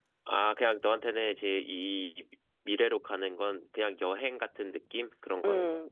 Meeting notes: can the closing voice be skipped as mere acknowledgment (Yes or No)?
No